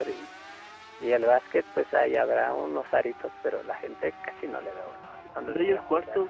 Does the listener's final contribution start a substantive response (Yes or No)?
Yes